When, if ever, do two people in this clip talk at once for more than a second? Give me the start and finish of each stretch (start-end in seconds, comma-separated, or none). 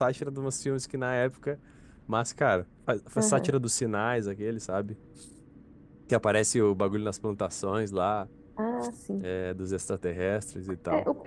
none